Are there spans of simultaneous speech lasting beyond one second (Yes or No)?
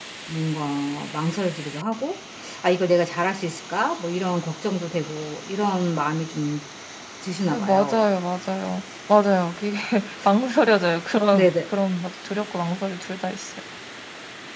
No